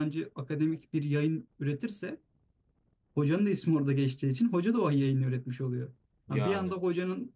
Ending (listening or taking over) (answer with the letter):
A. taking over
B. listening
B